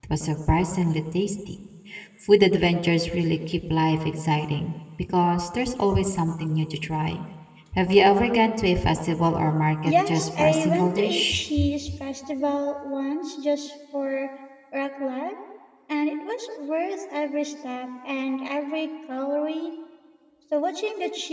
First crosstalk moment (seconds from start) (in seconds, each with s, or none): 9.8 s